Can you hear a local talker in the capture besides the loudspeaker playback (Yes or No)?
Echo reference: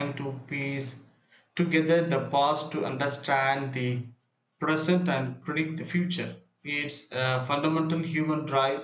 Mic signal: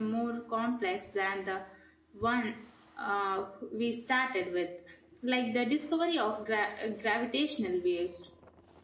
Yes